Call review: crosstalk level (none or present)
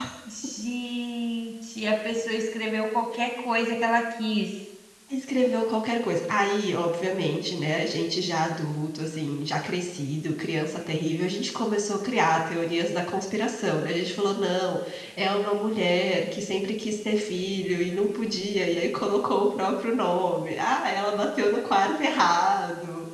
none